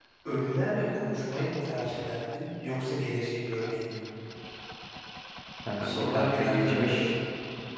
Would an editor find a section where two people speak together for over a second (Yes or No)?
Yes